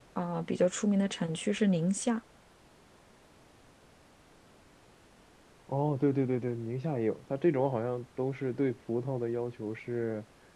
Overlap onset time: none

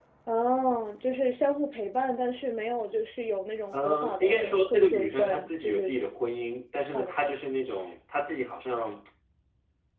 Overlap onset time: 4 s

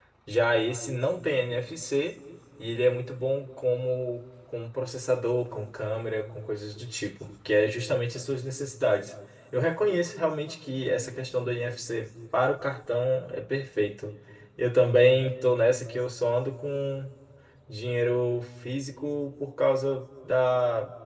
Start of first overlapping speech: none

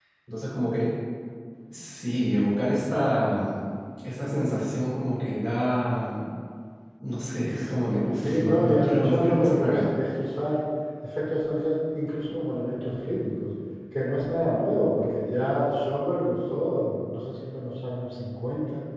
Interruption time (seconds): 8 s

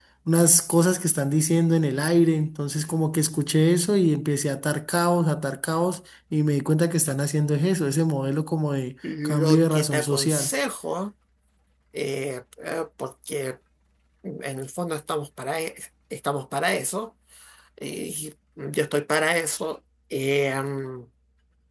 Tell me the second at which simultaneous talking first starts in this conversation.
9 s

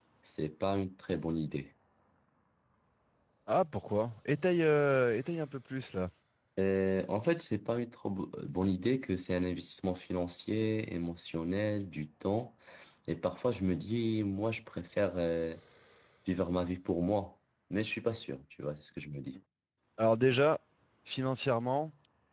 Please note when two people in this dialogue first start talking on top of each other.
none

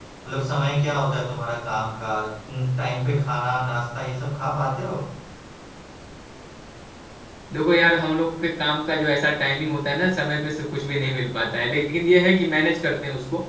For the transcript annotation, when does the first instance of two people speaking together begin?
none

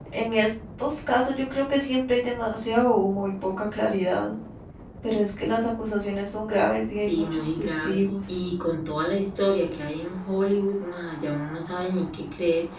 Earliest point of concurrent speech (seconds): 7 s

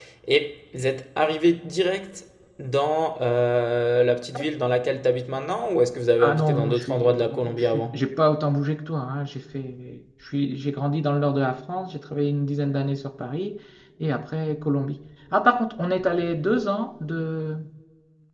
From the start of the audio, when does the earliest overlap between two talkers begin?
6 s

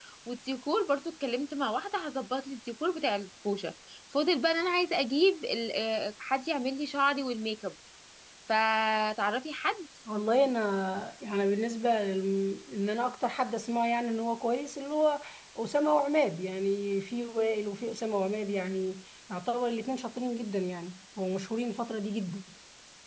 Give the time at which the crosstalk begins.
none

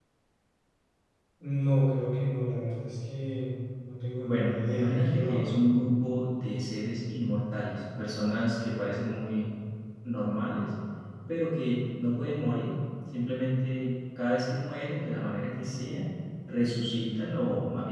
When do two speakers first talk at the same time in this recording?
4 s

